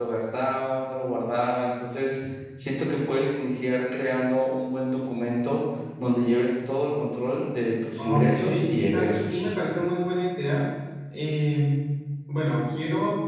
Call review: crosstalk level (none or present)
present